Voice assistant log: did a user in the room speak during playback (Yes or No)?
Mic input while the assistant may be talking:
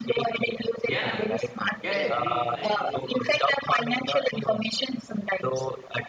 Yes